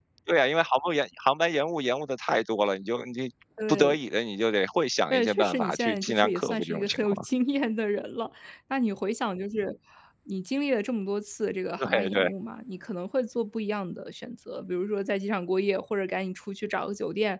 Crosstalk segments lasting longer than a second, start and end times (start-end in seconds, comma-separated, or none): 5.1-7.2